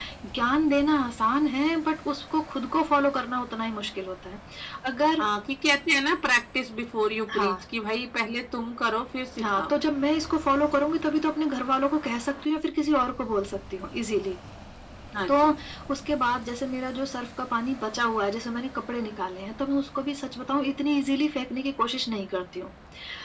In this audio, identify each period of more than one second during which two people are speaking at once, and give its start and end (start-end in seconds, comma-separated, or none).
none